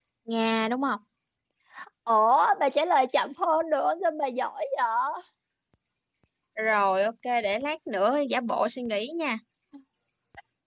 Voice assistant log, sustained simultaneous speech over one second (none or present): none